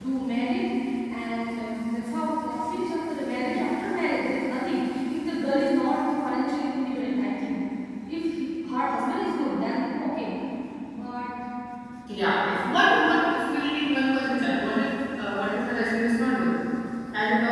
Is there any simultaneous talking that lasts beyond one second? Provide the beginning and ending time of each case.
none

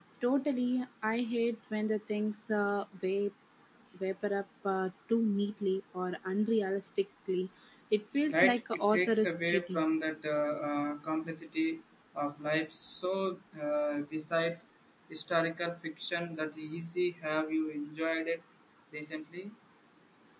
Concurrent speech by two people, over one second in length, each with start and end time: 8.3-9.8

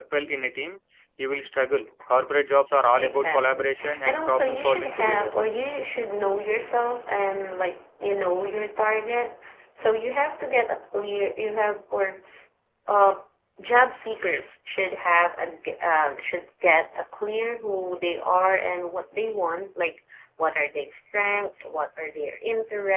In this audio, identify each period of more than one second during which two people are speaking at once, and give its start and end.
3.0-5.3

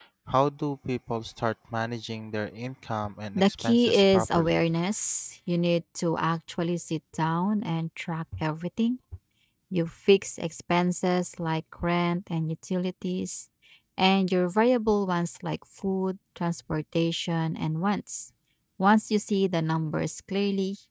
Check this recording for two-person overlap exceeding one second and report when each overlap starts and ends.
3.4-4.6

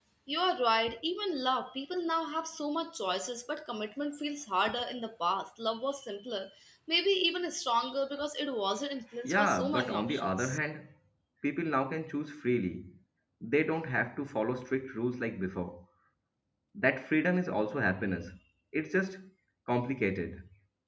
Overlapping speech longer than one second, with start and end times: 9.2-10.6

